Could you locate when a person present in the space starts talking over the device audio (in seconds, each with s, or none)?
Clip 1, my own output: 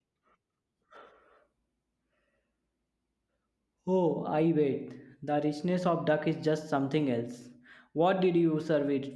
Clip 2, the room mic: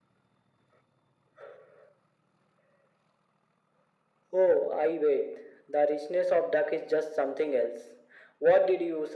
none